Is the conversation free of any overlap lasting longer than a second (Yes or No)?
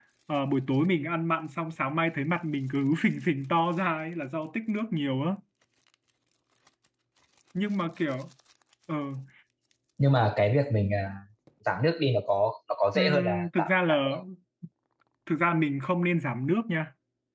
No